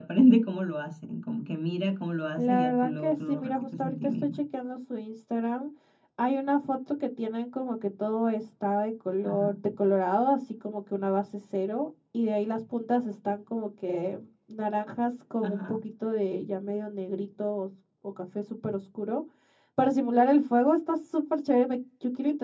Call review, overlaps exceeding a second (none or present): present